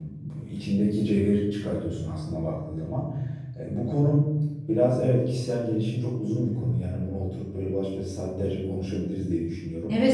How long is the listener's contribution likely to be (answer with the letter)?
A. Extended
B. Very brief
A